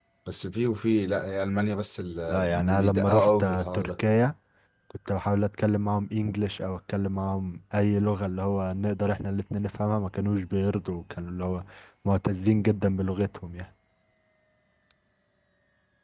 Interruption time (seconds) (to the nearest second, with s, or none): 2 s